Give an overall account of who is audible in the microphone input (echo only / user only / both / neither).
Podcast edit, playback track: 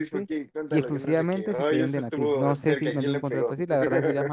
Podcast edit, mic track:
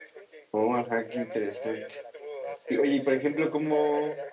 both